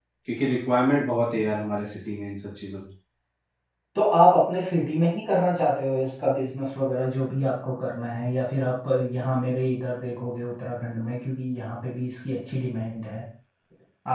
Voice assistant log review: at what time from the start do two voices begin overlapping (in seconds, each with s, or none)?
none